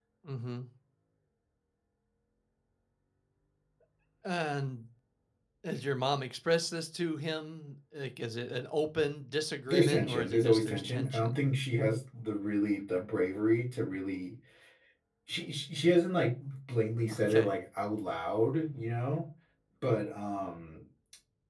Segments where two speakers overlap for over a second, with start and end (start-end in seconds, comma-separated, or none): 9.7-11.4